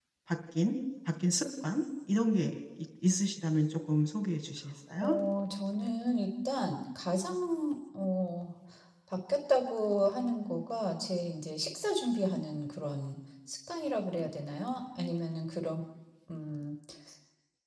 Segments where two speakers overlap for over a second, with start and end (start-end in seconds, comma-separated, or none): none